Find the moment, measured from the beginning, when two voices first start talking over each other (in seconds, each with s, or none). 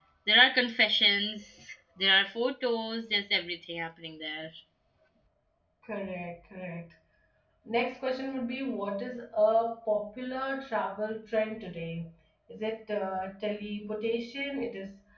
none